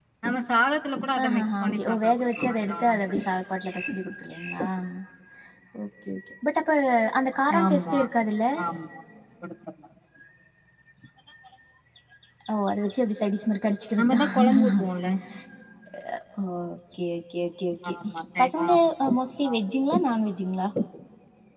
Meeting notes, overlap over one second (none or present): present